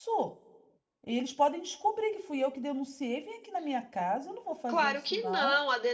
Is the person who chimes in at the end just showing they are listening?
No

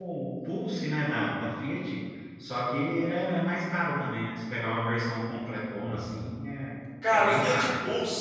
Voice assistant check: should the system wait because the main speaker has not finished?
No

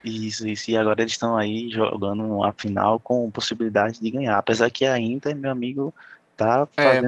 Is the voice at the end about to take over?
Yes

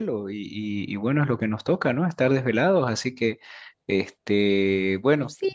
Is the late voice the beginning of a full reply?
Yes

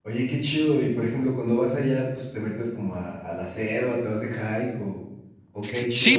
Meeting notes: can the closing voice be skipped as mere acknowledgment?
No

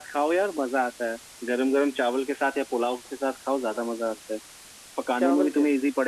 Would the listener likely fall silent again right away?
Yes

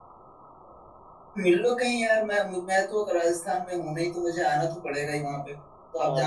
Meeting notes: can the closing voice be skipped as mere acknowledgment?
No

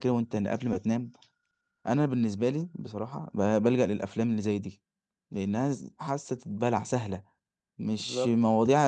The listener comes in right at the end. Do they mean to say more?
No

